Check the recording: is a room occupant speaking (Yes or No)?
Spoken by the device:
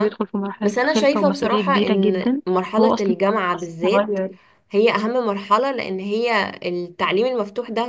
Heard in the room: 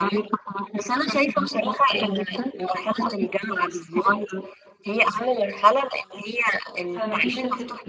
Yes